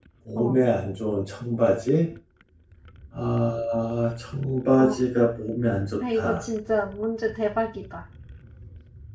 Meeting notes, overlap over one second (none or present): none